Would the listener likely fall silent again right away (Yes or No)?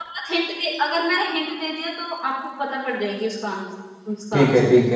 No